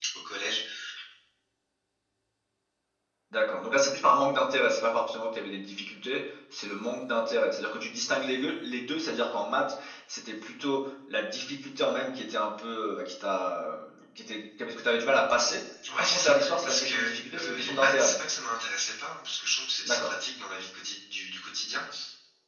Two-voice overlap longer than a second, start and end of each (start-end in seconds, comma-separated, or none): 16.0-18.2